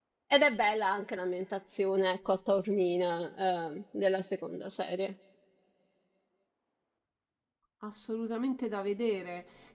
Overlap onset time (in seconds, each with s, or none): none